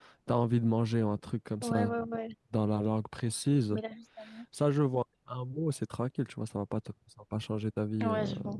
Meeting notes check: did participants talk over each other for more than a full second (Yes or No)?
No